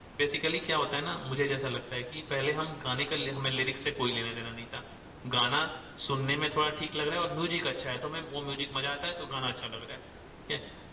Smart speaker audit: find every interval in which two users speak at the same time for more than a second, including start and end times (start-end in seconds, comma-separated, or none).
none